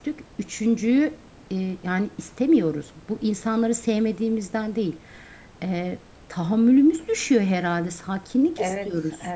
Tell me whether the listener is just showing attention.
No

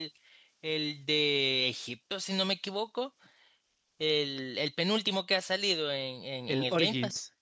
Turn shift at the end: No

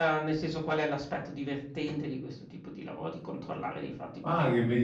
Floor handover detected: Yes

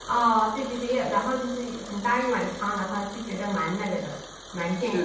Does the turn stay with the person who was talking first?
No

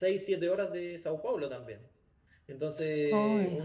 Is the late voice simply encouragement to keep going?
Yes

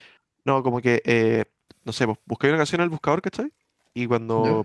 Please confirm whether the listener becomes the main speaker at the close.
No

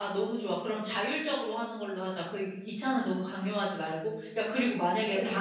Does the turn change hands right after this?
No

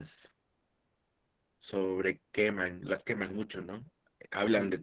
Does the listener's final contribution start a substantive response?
No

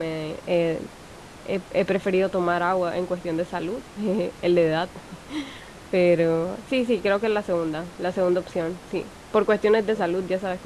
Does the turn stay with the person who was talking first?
Yes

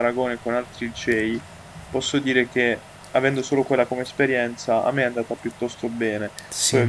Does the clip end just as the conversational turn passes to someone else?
No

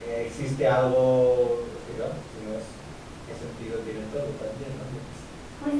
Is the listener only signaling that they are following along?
No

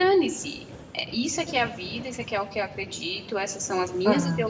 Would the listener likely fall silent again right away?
Yes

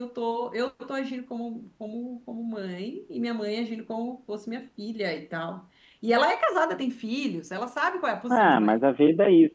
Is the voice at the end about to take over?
Yes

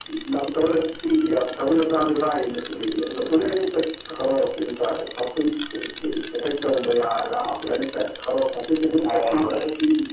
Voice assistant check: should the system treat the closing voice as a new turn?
No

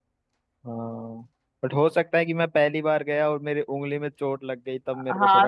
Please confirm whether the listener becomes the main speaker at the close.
Yes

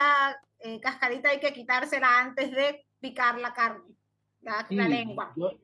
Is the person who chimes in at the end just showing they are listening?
No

